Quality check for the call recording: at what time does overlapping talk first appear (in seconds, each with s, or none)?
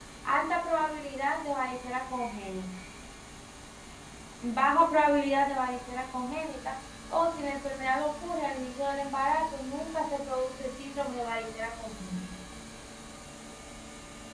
none